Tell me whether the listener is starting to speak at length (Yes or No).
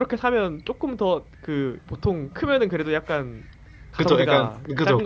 Yes